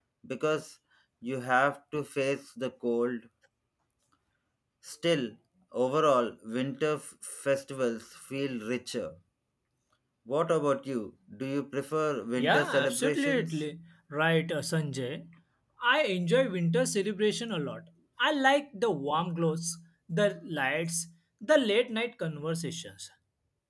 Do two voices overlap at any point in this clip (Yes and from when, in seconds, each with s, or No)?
Yes, from 12.4 s